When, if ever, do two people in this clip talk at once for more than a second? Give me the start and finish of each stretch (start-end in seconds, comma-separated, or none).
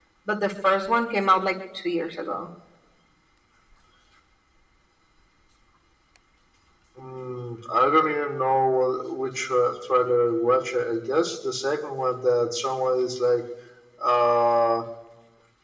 none